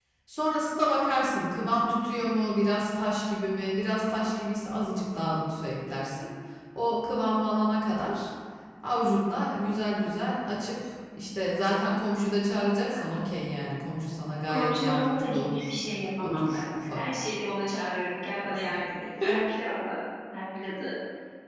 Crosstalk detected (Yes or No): Yes